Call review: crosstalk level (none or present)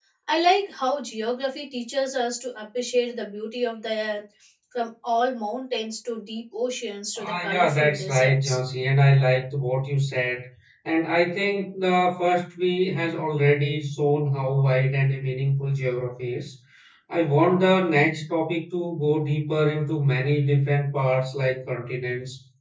present